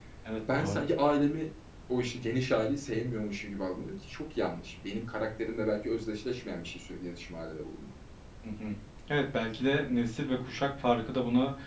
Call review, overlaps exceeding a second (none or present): none